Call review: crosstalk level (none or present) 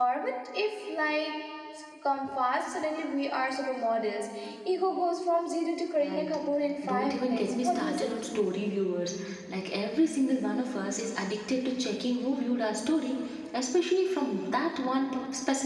present